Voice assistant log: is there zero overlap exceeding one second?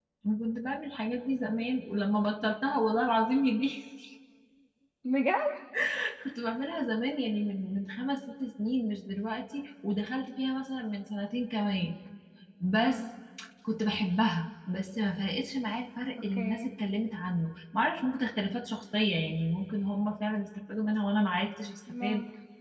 Yes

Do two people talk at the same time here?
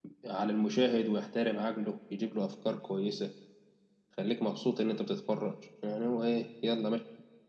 No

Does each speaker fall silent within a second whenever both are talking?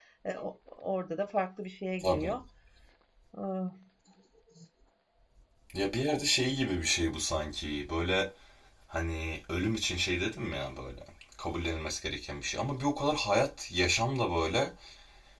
Yes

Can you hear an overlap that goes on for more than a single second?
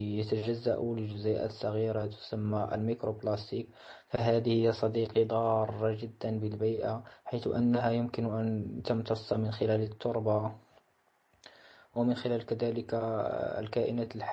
No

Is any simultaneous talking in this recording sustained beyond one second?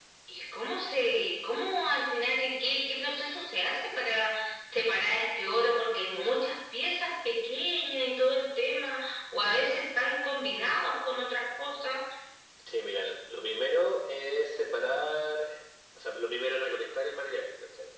No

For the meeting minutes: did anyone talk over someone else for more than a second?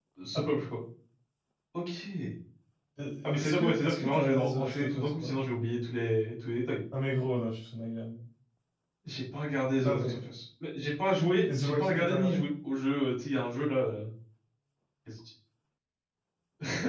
Yes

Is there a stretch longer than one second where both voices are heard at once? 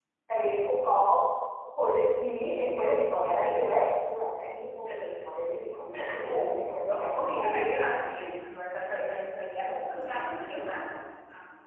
Yes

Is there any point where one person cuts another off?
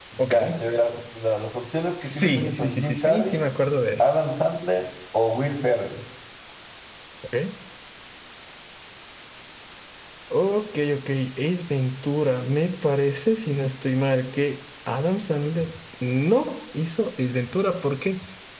Yes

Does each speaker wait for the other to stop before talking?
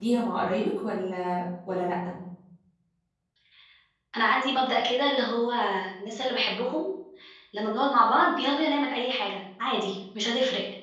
Yes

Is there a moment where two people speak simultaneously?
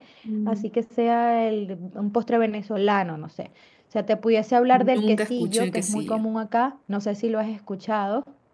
Yes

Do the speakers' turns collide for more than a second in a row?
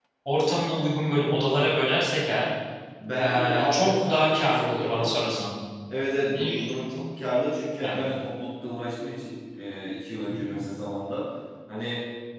Yes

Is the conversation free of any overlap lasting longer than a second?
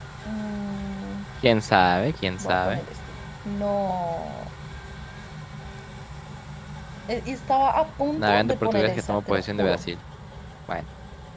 No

